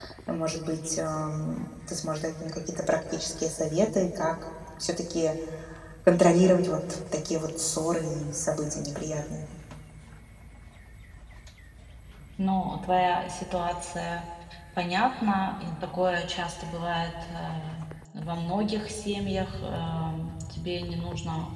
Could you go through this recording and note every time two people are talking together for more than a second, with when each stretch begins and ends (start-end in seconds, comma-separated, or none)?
none